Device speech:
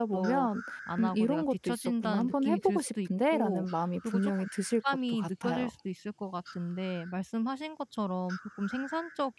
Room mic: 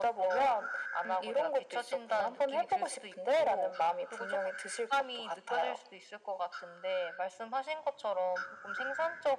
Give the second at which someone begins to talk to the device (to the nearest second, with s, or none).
none